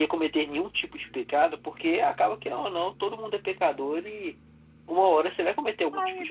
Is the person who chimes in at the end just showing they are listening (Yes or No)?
No